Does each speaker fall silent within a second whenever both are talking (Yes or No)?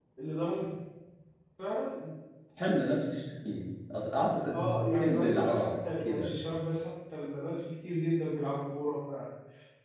No